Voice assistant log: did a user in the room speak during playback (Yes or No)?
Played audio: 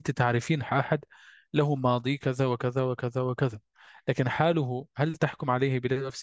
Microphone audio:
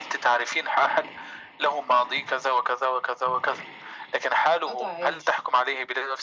Yes